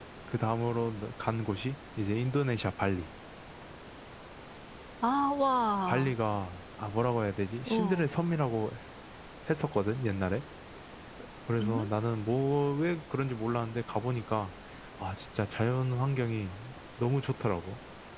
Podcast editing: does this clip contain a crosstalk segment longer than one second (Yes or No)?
No